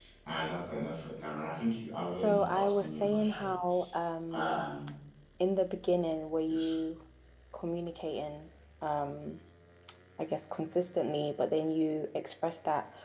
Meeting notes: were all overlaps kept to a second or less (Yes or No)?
No